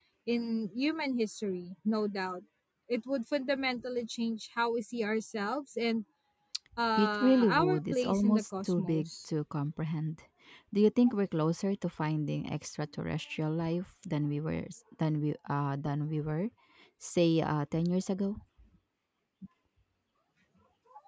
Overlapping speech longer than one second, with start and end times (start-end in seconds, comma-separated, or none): 7.0-9.1